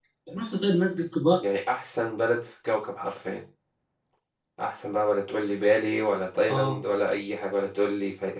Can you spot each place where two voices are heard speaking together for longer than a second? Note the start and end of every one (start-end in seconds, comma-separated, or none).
none